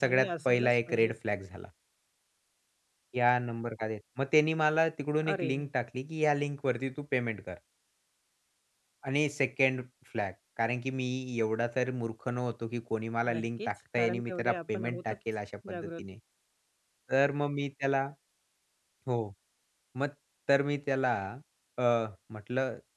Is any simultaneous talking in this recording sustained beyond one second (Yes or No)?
Yes